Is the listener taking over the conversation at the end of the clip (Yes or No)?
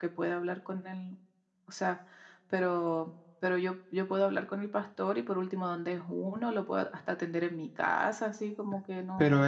Yes